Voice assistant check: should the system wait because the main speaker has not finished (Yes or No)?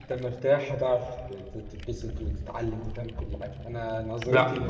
No